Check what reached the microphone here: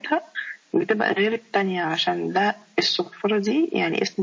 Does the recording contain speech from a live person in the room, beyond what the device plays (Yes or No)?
No